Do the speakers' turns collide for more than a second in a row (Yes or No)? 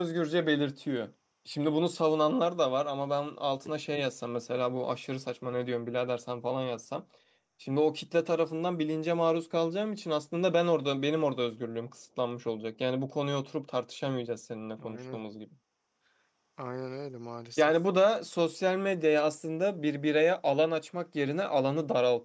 No